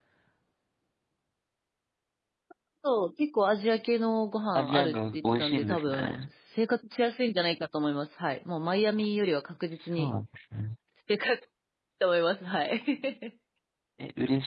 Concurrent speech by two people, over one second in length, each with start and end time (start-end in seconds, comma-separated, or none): 4.5-6.2